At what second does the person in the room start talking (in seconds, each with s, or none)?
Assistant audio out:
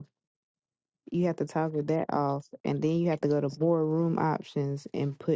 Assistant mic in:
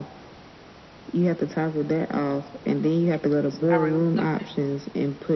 3.7 s